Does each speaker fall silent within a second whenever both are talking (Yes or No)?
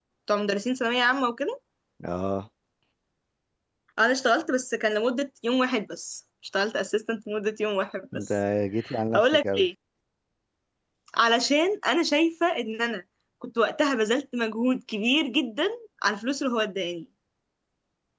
Yes